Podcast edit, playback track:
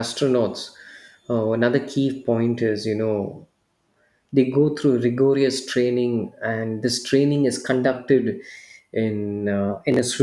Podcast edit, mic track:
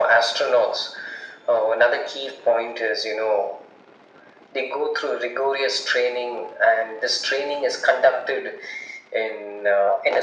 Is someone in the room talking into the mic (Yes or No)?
No